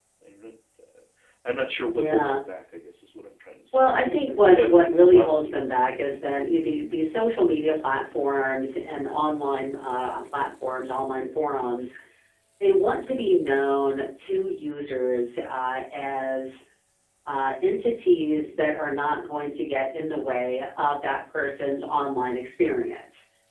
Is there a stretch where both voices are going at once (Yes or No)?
Yes